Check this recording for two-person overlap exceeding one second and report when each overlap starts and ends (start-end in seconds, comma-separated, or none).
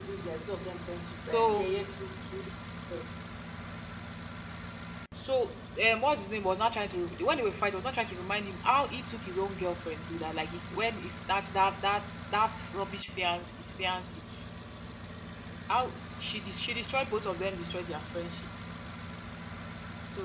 none